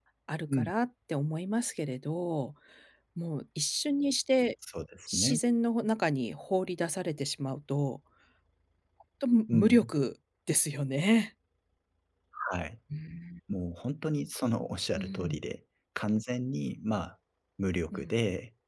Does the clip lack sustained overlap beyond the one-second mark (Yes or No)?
Yes